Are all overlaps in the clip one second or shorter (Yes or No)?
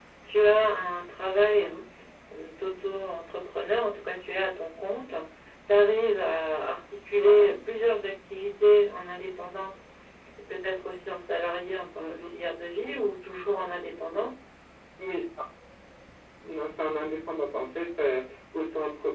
Yes